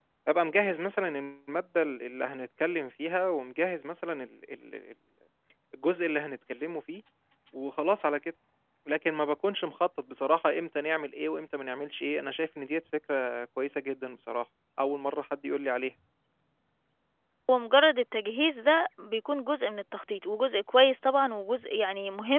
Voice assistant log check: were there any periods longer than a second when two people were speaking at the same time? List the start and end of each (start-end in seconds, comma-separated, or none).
none